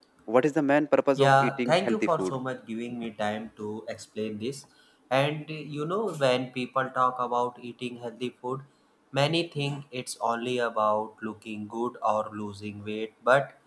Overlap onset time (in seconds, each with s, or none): 1.1 s